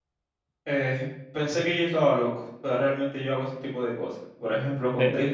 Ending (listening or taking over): listening